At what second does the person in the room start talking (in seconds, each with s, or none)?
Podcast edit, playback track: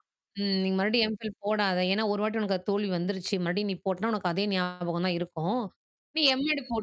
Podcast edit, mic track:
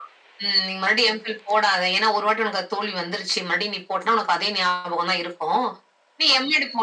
none